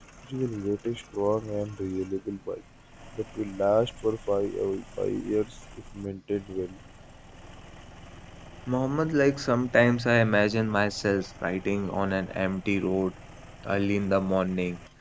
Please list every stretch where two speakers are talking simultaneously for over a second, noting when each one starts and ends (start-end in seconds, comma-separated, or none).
none